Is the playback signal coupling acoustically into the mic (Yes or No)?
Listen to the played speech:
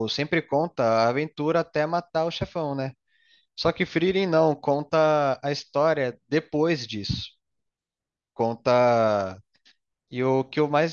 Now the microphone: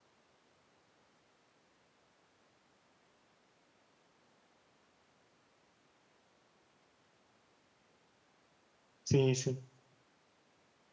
No